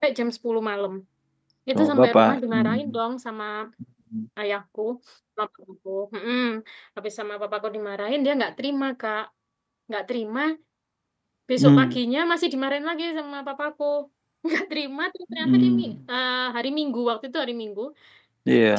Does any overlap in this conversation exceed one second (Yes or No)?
Yes